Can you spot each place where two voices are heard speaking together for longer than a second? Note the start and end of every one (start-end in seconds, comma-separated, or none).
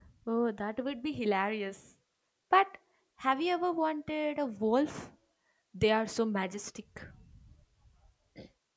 none